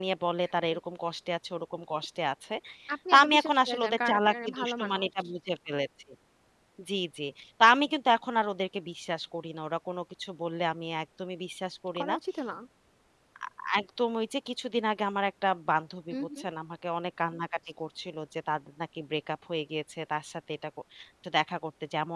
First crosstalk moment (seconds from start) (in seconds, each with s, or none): 3.1 s